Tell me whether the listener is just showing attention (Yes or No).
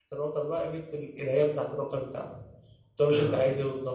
Yes